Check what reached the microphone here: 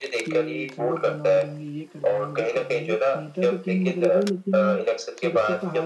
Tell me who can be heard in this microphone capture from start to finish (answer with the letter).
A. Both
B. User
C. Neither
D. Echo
A